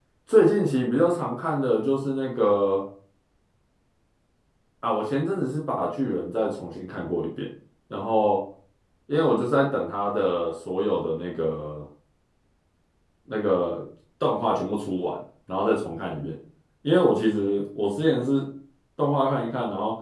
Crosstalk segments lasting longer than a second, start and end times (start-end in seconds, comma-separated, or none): none